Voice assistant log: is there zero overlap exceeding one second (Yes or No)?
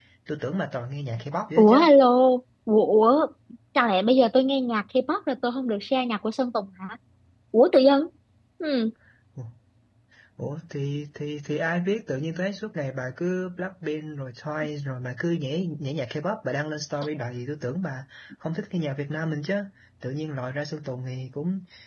Yes